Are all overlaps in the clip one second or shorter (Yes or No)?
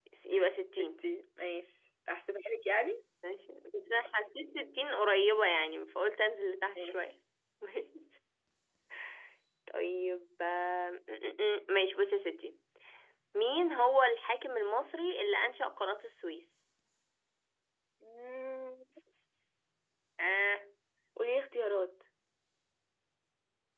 Yes